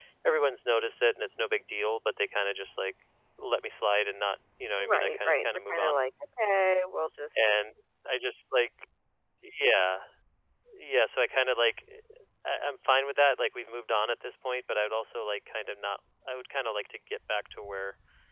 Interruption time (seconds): 4.8 s

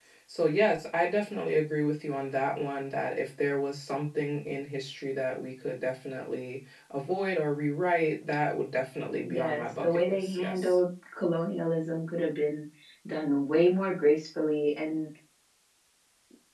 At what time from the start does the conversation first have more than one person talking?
9.2 s

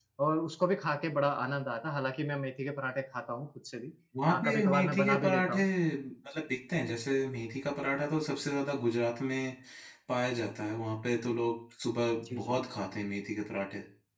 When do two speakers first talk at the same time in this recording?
4.3 s

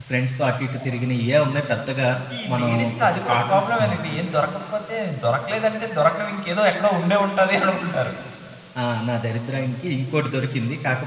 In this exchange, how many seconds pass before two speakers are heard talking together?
2.5 s

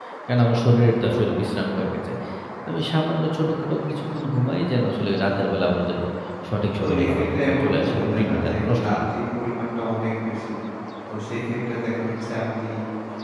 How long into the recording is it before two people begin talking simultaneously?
6.8 s

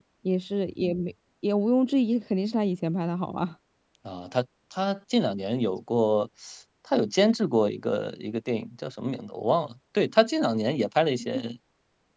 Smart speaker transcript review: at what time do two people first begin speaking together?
none

